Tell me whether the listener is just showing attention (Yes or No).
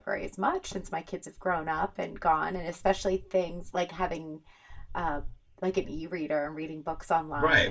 No